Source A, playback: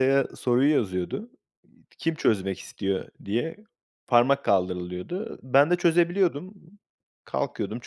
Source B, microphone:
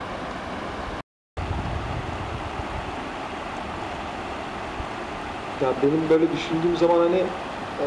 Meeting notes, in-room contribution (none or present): present